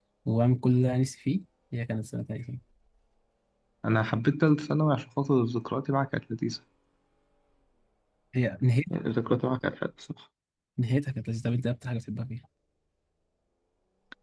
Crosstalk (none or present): none